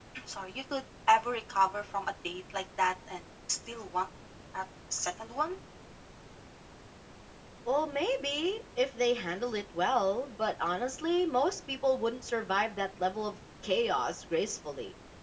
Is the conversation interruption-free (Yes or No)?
Yes